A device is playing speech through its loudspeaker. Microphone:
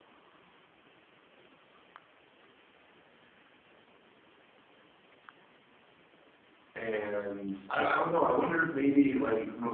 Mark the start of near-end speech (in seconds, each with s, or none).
6.7 s